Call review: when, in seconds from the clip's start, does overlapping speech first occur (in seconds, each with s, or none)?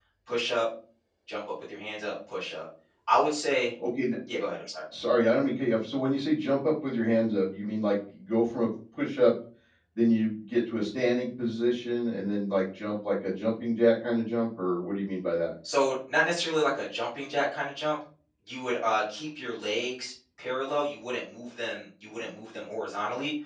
none